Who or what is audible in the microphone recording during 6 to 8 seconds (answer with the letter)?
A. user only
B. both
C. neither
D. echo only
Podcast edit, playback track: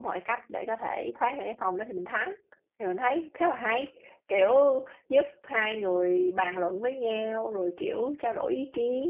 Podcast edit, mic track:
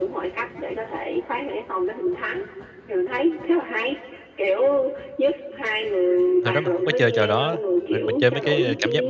B